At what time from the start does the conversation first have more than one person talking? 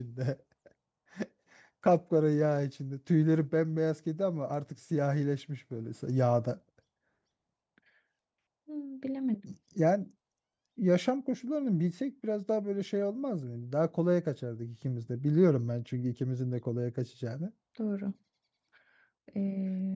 none

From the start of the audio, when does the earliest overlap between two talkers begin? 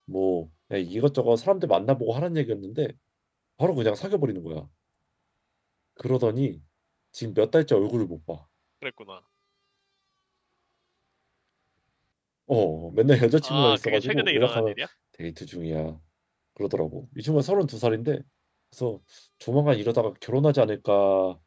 13 s

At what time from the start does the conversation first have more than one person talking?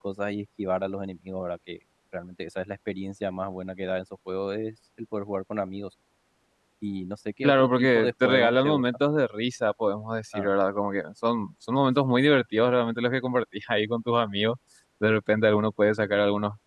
7 s

